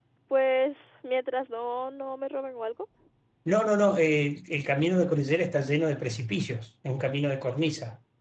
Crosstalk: none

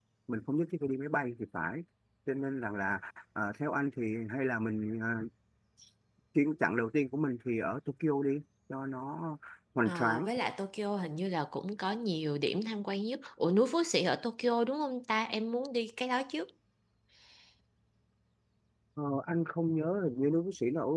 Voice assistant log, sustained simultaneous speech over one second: none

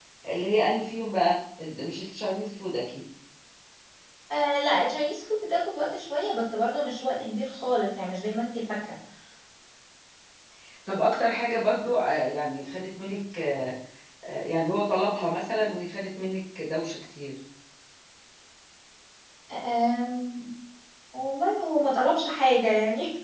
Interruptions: none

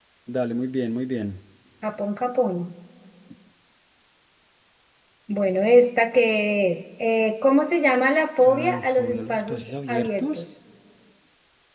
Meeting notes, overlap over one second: present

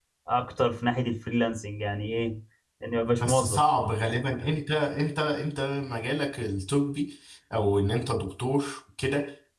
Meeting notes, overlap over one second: none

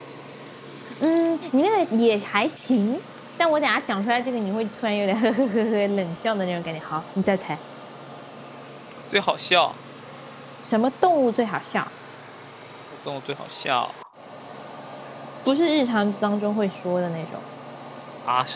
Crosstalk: none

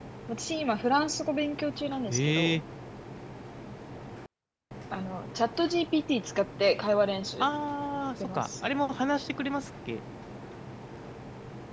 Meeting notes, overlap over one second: none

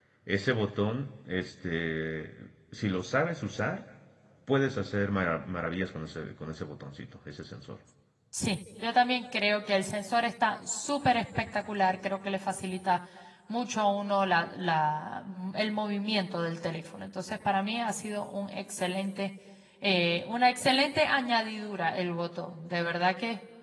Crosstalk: none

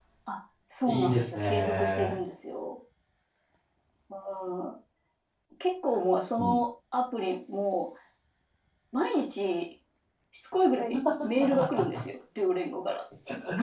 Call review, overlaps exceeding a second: present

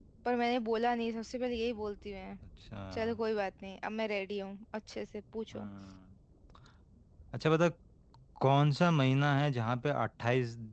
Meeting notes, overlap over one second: none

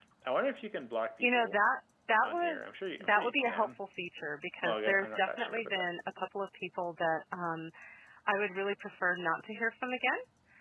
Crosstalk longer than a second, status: present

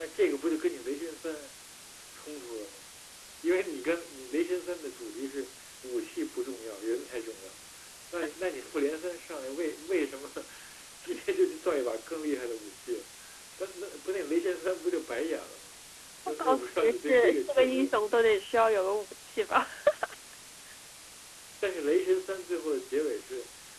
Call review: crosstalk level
present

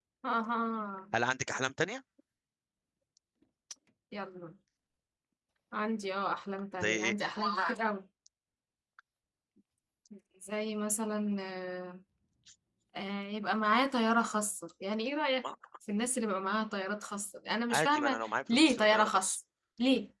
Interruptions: present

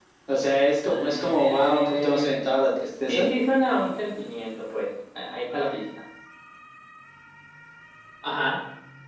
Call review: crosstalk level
present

